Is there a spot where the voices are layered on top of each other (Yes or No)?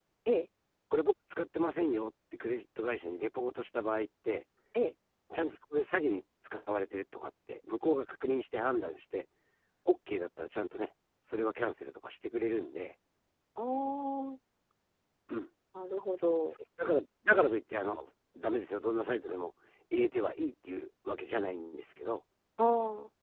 No